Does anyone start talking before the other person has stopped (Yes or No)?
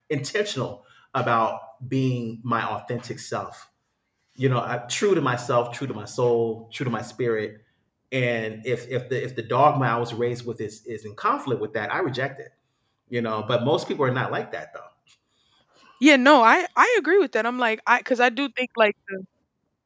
No